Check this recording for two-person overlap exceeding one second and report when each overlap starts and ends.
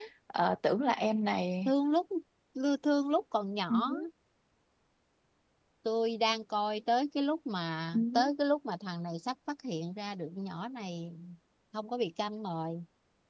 none

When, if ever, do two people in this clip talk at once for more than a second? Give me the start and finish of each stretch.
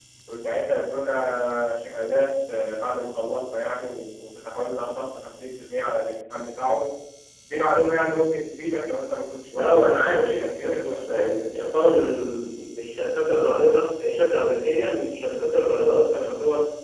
9.5-11.4

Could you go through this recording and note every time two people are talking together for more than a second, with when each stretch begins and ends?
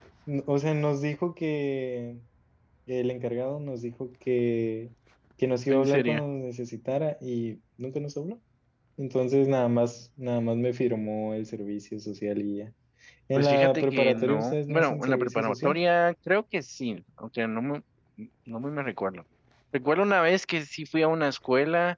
13.3-15.8

